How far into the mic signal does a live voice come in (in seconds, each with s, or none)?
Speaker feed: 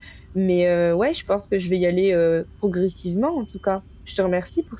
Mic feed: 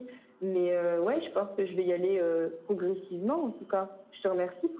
none